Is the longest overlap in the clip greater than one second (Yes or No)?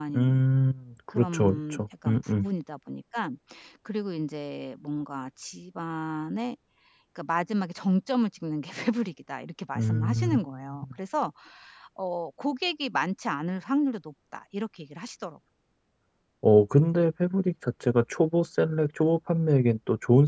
Yes